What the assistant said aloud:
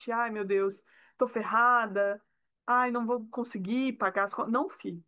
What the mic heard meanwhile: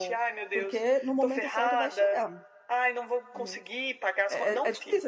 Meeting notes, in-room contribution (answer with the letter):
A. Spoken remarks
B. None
A